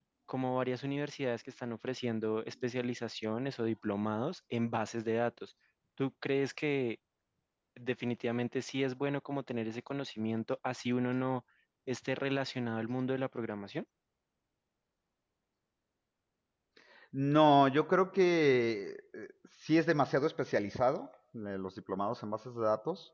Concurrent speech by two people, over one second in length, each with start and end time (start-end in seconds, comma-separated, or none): none